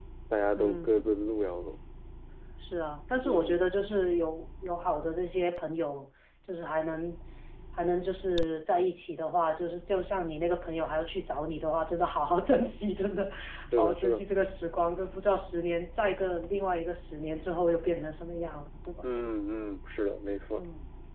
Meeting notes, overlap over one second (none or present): none